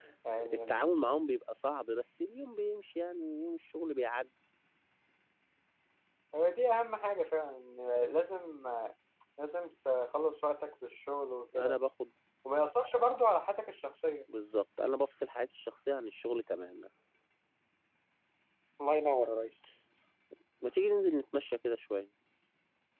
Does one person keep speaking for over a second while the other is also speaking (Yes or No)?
No